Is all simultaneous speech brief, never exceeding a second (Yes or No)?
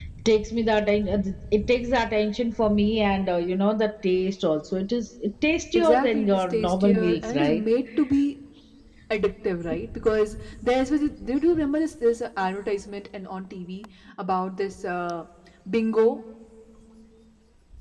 No